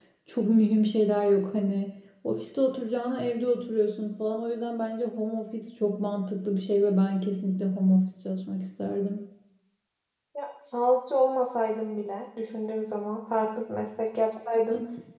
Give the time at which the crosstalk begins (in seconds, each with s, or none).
none